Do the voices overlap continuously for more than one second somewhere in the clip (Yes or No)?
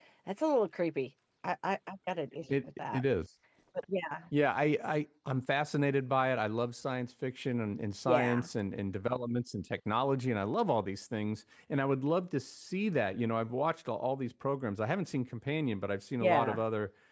No